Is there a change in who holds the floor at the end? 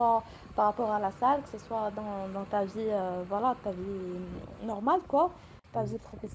No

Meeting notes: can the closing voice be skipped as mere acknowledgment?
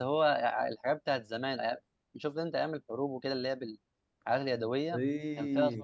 No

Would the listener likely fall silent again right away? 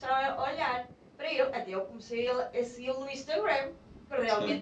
Yes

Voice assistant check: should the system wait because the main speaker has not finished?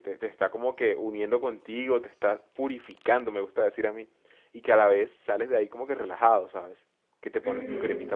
Yes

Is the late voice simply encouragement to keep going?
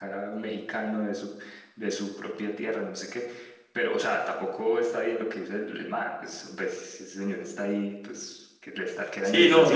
No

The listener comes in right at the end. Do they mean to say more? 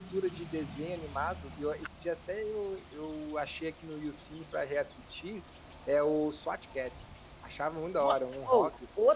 Yes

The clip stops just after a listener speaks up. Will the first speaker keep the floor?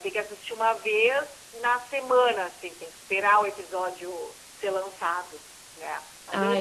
No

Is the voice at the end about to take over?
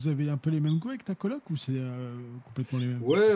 Yes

